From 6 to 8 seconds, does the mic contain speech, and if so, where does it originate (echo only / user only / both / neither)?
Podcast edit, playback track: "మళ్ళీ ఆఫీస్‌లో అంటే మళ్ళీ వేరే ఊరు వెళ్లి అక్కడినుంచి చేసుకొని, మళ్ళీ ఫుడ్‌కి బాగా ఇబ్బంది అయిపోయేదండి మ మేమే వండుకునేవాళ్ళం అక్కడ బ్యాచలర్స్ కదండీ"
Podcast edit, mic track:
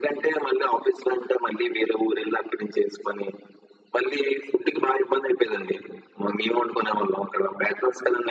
echo only